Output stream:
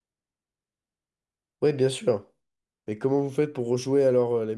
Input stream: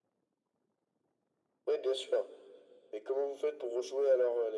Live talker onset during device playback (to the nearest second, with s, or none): none